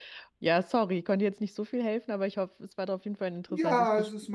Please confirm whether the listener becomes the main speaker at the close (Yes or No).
Yes